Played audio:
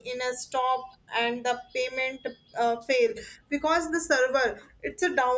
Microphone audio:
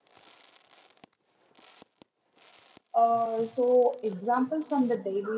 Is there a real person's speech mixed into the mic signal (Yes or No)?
Yes